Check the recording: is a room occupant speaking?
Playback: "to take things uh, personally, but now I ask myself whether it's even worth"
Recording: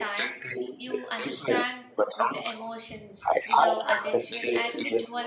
Yes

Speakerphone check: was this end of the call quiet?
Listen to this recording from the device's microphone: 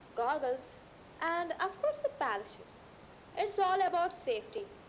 Yes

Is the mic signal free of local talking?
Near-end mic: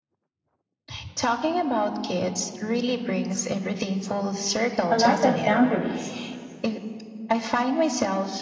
No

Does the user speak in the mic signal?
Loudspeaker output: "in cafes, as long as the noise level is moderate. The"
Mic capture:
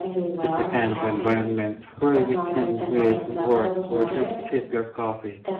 Yes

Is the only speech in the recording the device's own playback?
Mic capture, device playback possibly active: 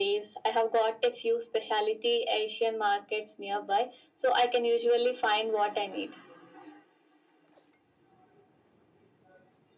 Yes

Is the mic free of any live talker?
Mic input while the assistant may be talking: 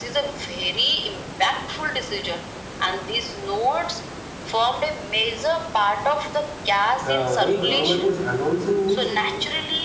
No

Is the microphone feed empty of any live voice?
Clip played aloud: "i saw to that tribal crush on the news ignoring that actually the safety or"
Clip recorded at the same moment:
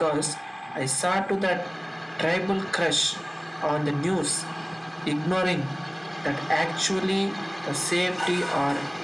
Yes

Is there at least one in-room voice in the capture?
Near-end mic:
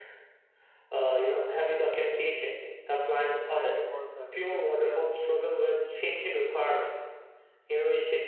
Yes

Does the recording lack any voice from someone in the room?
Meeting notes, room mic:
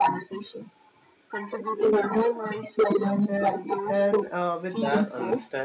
No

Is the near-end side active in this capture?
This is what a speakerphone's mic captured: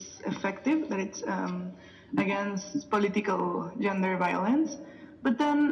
No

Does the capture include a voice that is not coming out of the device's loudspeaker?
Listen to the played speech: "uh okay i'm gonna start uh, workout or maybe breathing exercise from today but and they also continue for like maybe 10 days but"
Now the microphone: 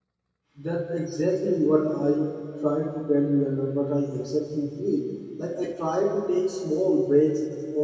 Yes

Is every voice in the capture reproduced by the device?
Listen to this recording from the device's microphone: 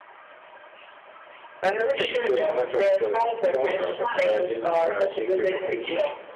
No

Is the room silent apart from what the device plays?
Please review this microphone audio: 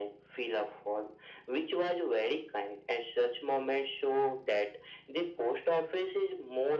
Yes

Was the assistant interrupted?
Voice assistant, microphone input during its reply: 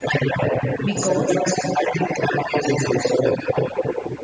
Yes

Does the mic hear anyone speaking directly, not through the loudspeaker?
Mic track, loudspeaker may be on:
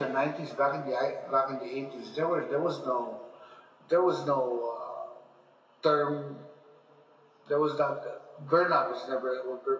No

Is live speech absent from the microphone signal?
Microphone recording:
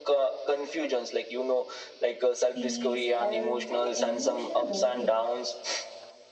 No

